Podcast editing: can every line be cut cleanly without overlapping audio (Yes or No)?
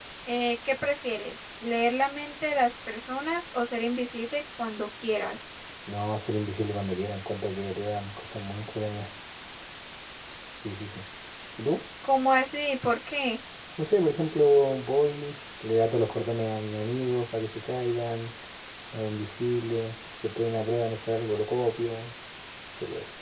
Yes